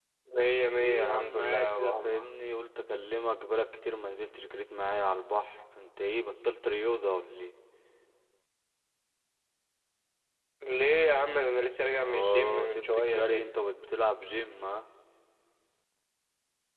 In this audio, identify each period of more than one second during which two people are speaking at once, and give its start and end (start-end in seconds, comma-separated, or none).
0.7-2.2, 12.0-13.5